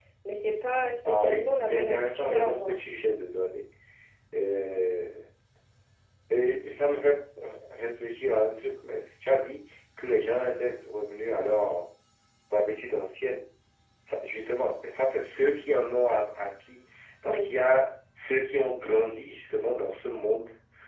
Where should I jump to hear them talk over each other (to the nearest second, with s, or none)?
1 s